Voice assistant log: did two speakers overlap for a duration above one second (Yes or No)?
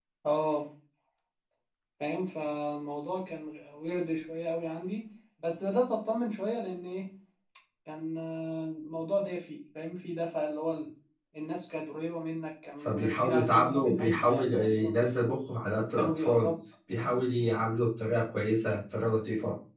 Yes